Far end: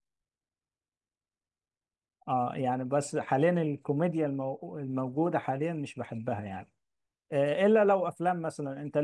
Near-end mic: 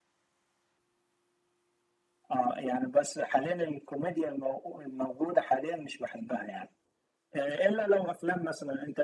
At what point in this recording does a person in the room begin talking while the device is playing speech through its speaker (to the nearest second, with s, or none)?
none